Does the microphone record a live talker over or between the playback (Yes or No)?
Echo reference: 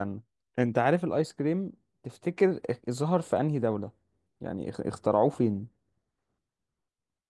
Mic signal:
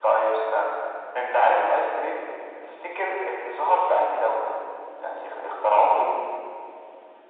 No